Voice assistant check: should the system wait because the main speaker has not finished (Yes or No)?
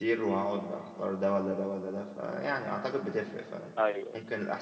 Yes